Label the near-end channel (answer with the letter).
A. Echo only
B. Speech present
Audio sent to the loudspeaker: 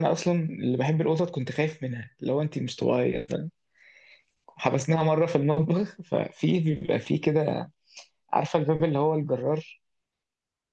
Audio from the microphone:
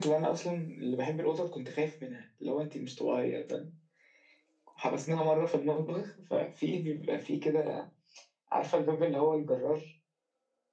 A